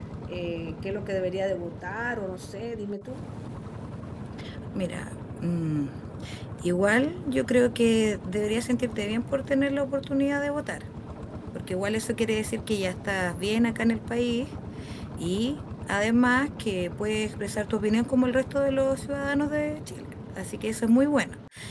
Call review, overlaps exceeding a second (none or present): none